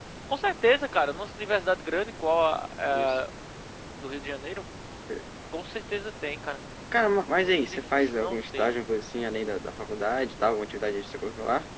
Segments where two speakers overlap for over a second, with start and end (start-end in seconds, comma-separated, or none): 7.4-8.7